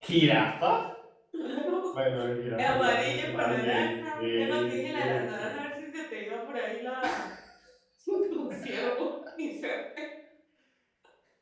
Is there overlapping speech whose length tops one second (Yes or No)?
Yes